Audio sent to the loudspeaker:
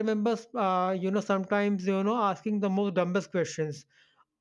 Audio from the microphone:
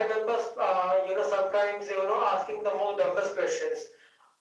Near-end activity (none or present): none